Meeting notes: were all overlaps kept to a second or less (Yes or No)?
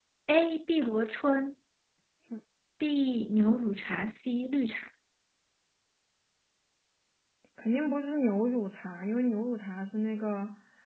Yes